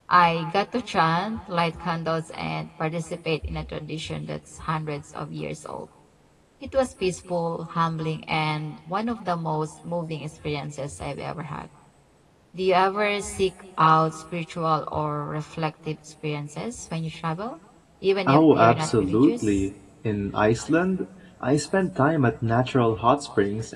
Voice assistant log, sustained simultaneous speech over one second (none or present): present